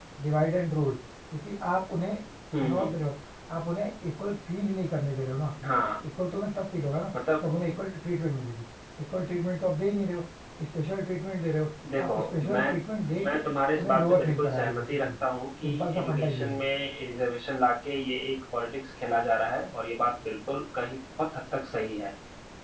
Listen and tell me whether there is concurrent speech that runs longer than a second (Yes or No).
Yes